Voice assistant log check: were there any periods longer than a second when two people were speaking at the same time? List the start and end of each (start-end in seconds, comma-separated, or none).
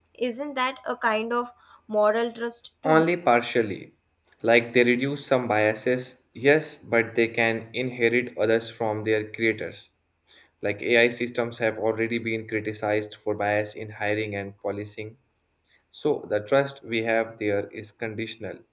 none